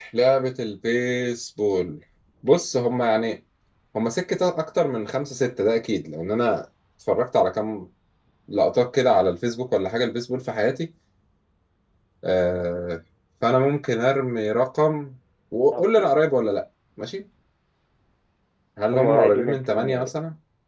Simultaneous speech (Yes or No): Yes